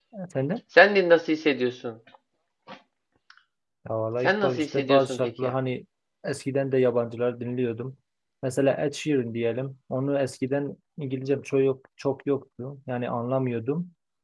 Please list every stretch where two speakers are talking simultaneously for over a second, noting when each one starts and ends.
4.2-5.5

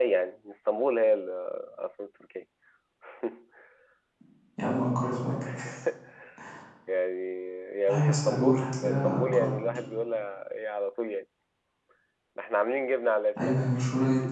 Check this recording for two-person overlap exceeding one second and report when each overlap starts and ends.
7.9-9.5

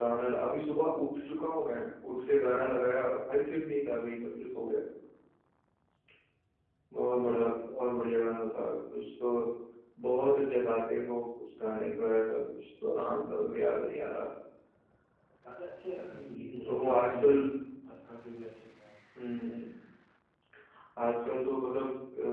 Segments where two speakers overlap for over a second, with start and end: 16.1-17.3

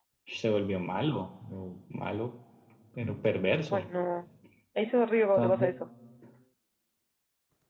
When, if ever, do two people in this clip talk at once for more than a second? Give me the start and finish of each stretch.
none

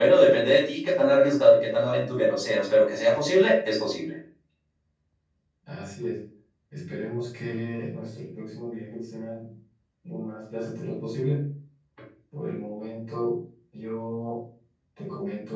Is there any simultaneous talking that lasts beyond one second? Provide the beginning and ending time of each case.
none

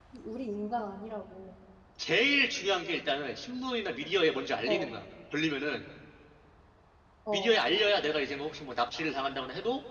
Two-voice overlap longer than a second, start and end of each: none

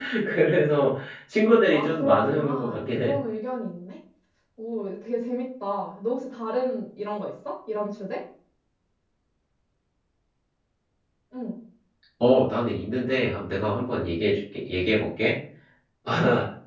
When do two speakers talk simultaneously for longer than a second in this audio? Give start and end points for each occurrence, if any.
1.7-3.1

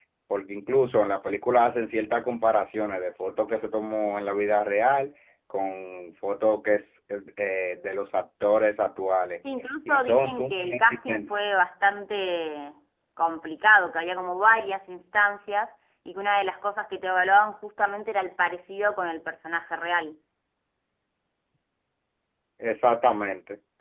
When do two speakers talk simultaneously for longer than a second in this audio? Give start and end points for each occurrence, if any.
9.9-11.2

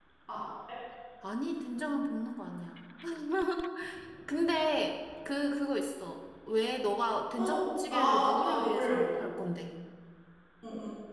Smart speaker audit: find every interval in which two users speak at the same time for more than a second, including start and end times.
7.4-9.2

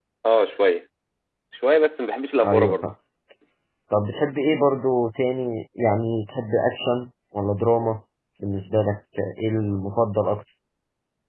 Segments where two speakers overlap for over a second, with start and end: none

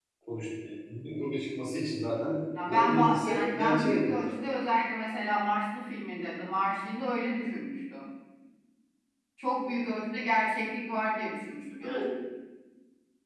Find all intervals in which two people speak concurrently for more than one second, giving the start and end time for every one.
2.7-4.4

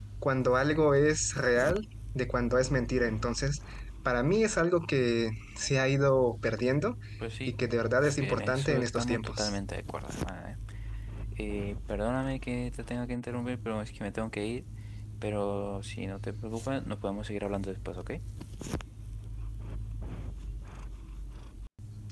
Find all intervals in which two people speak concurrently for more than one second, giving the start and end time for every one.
8.2-9.6

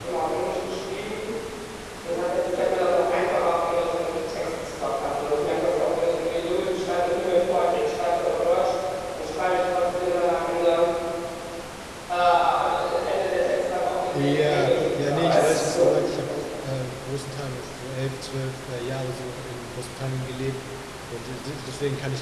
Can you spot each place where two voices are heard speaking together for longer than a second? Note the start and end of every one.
14.1-15.9

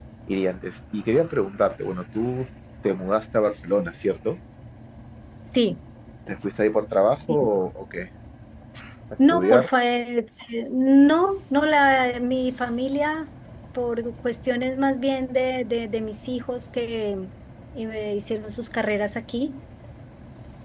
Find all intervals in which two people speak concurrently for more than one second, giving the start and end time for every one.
none

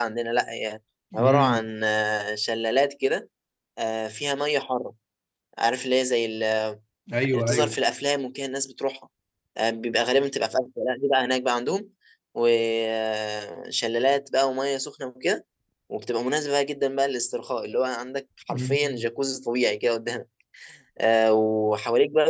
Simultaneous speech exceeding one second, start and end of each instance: none

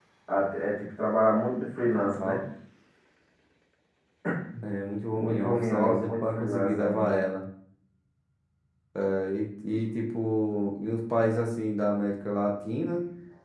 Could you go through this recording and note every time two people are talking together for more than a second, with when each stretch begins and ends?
5.2-7.2

